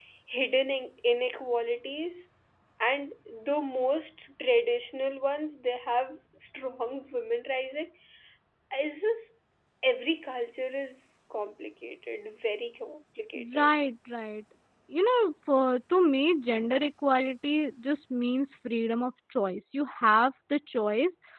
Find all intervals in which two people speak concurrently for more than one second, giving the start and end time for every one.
none

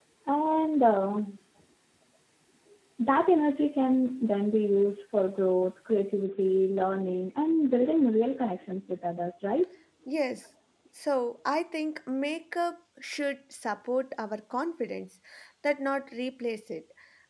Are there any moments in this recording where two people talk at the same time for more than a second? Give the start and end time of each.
none

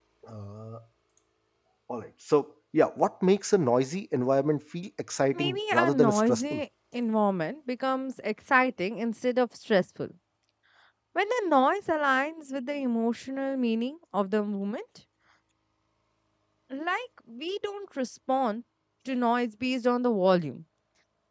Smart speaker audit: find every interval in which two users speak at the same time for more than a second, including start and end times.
5.3-6.6

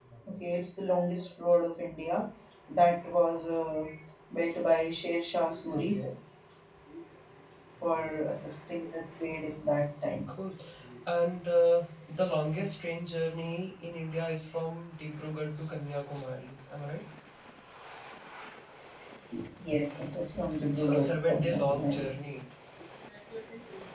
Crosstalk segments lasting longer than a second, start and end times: 20.8-22.1

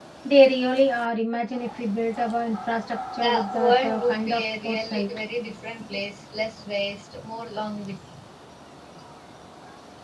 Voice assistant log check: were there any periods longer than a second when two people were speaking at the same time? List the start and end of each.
3.2-5.1

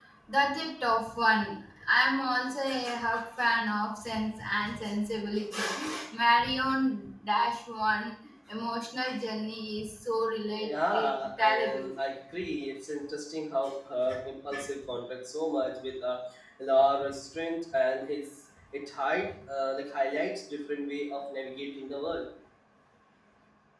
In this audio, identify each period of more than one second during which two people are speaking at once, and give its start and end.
10.6-11.9

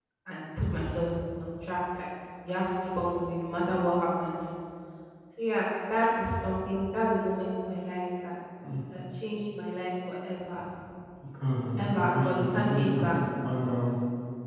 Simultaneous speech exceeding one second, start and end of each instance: 11.8-13.2

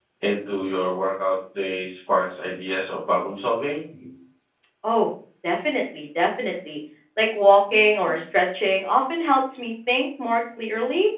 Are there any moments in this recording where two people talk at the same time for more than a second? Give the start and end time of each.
none

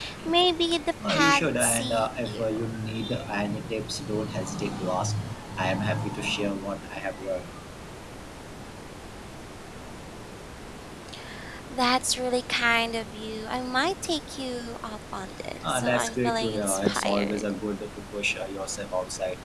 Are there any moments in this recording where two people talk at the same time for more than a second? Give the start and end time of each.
1.1-2.7, 15.7-17.5

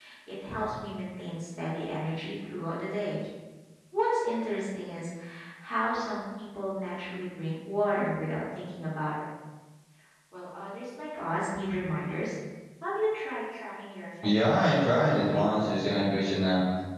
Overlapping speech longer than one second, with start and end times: 14.2-15.4

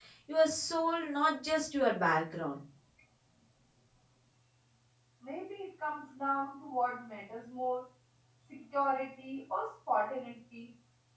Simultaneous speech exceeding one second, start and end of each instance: none

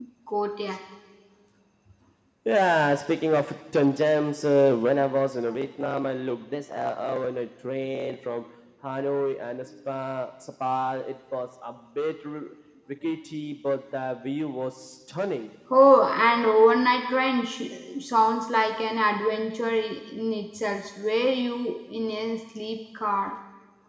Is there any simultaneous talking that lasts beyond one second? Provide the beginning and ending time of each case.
none

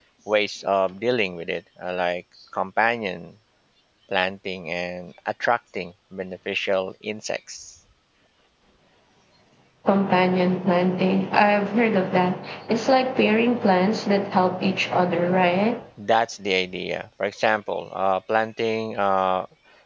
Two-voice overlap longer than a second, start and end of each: none

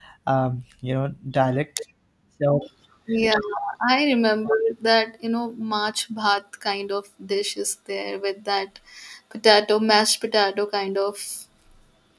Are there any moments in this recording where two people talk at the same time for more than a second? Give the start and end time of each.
none

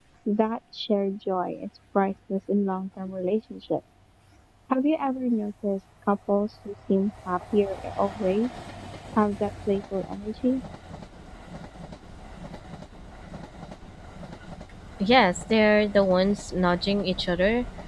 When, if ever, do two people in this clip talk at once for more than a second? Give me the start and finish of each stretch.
none

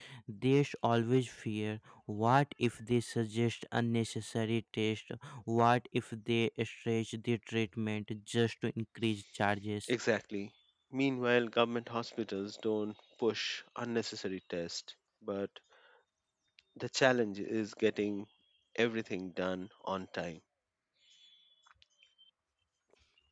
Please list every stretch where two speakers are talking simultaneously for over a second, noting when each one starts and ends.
none

